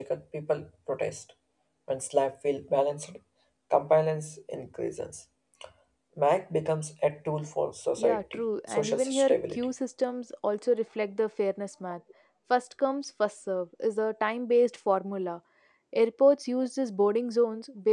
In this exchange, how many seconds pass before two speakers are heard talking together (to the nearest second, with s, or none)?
8 s